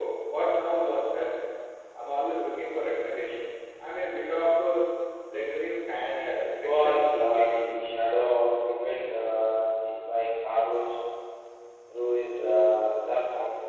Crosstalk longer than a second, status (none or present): present